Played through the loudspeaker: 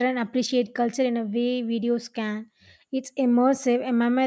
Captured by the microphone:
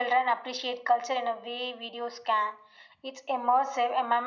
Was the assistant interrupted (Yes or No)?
No